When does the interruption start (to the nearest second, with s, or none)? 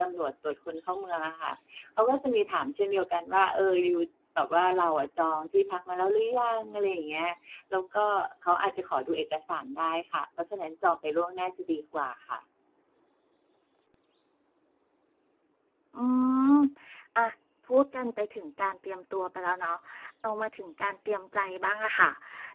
none